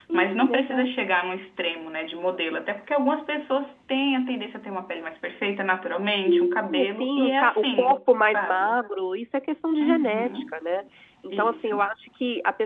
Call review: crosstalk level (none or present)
present